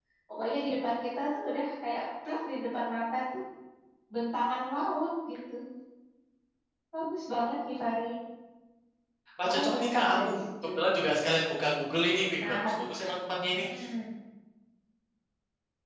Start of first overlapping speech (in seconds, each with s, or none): 9.4 s